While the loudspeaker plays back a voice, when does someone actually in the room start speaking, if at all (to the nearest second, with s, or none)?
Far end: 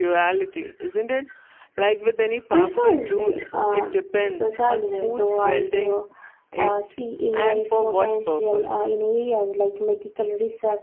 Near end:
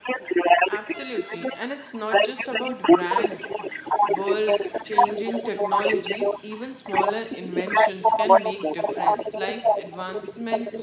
1 s